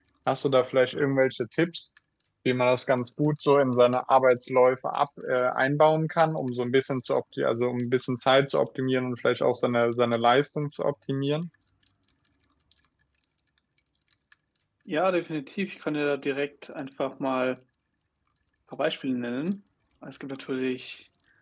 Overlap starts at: none

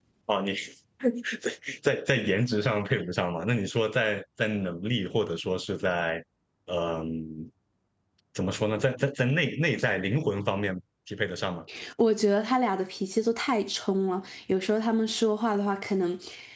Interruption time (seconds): none

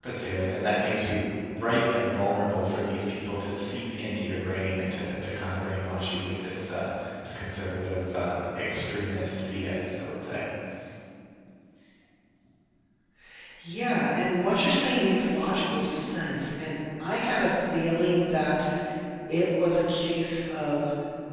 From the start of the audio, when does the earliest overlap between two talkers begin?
none

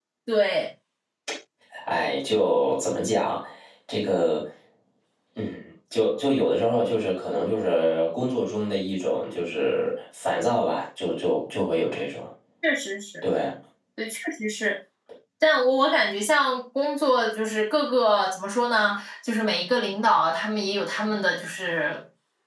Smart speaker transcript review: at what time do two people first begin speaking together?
none

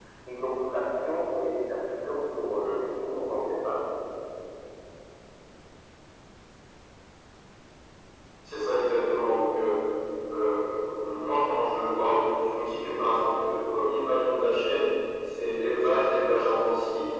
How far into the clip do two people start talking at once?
none

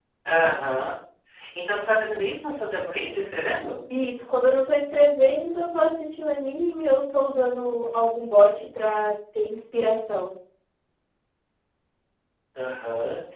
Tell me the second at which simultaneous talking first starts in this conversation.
none

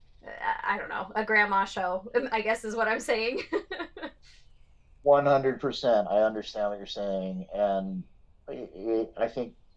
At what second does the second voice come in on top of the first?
none

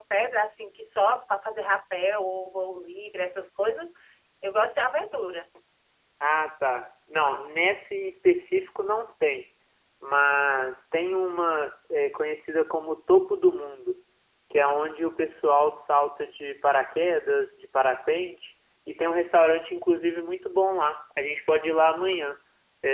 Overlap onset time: none

